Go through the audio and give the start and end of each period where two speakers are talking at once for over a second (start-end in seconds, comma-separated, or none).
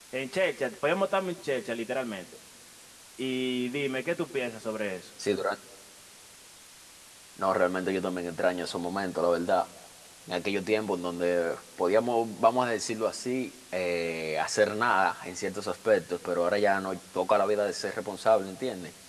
none